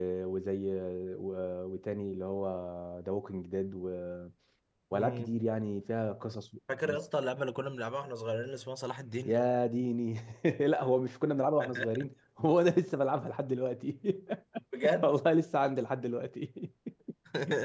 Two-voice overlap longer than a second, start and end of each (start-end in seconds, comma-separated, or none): none